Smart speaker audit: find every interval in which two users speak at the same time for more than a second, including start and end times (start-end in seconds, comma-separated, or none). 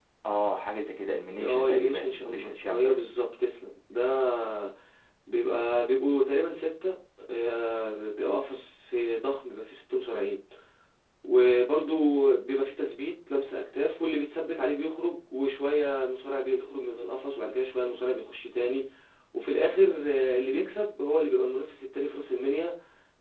1.4-3.0